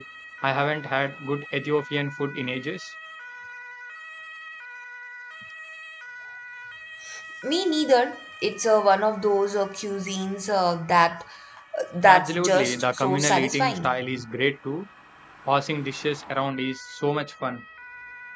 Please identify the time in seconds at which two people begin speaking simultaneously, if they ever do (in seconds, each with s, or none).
12.1 s